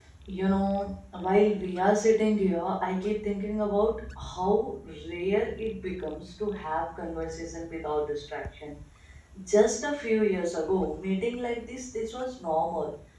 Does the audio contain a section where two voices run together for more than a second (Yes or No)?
No